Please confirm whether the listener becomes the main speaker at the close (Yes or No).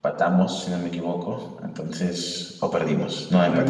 Yes